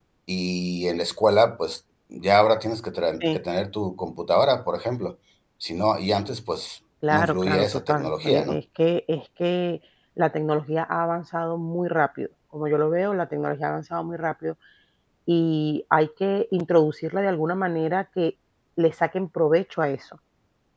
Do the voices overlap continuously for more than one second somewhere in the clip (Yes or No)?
Yes